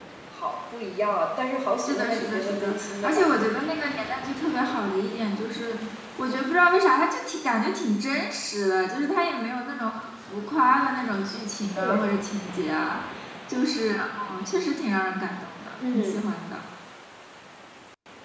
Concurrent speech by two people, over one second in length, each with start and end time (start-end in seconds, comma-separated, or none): 1.9-3.6